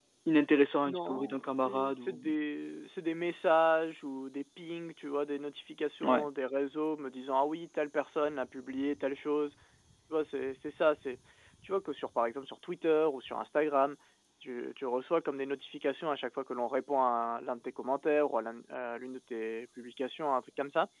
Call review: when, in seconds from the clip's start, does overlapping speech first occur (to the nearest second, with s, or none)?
1 s